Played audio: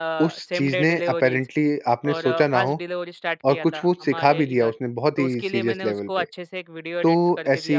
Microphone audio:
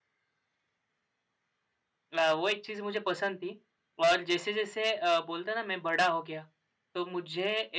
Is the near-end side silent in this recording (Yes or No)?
No